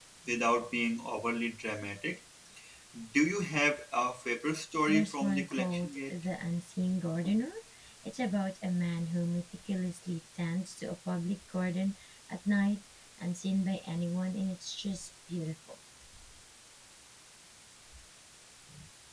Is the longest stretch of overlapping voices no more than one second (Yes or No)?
No